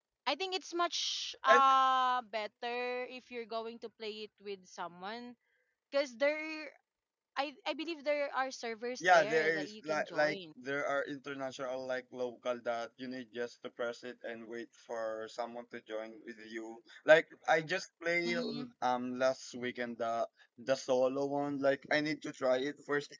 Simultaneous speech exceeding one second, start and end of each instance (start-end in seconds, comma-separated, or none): 9.0-10.4